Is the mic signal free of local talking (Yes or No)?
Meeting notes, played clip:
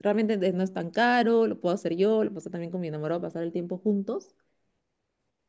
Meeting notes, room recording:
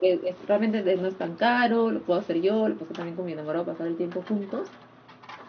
Yes